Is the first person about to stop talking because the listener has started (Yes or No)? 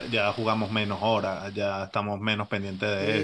Yes